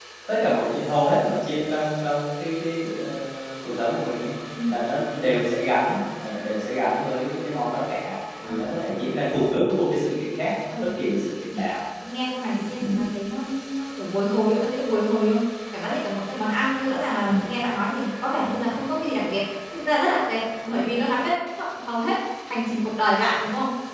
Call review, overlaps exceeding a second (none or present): none